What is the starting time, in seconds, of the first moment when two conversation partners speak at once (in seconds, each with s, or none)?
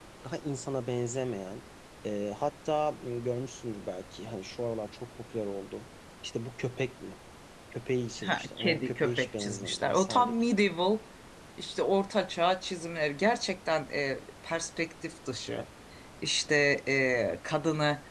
8.2 s